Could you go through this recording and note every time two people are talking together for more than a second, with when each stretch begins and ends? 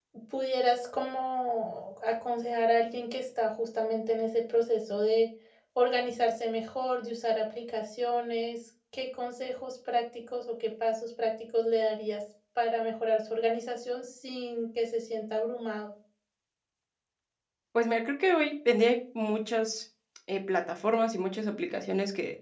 none

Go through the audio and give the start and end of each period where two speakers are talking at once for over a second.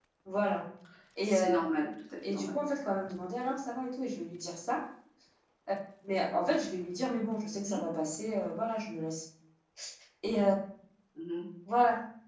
none

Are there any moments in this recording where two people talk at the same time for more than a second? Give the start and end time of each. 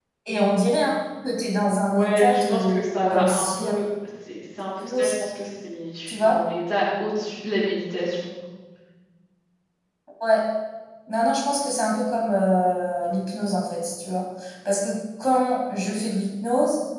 1.9-3.7

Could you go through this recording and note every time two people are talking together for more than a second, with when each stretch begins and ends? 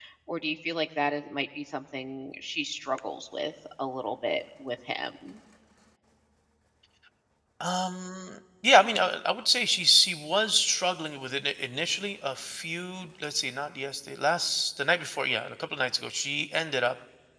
none

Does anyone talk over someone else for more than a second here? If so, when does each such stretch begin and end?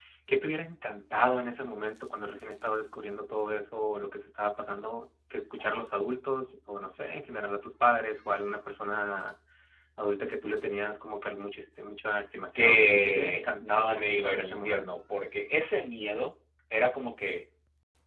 12.6-15.0

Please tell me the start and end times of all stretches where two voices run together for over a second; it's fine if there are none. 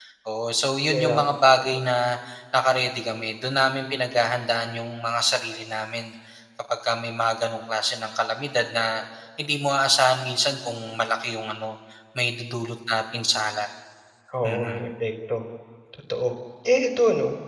none

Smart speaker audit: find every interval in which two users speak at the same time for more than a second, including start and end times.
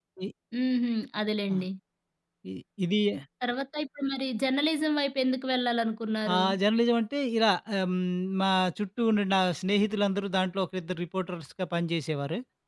none

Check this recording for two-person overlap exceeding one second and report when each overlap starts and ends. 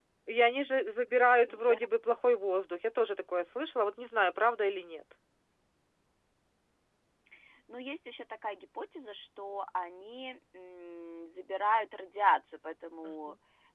none

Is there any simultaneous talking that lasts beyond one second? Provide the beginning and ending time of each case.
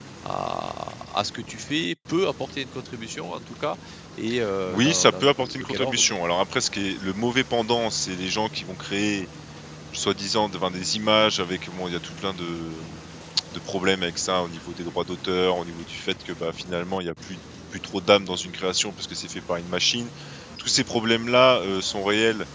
4.7-6.2

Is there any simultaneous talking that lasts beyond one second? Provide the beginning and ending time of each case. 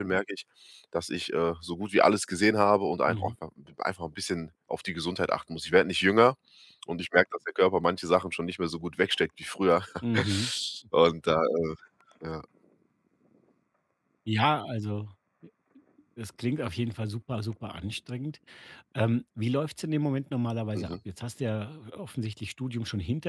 none

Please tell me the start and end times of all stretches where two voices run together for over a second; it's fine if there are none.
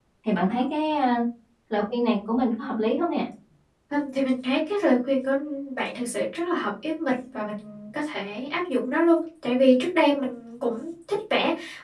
none

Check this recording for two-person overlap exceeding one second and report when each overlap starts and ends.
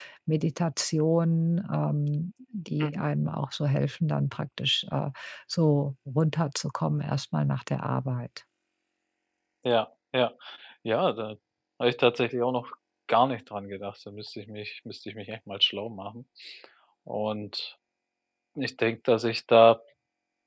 none

